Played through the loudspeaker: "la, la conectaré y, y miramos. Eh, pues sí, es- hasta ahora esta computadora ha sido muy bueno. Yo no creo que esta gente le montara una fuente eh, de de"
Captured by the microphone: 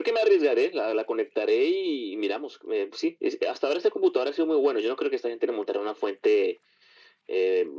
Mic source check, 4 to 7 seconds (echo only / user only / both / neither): echo only